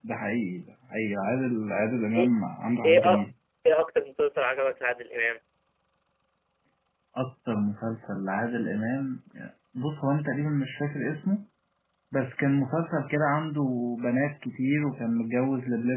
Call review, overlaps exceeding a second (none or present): none